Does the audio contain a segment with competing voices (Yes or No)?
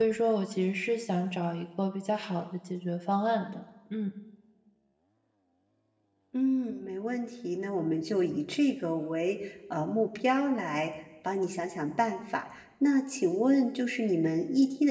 No